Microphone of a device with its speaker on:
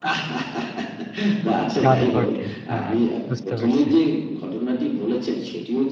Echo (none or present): present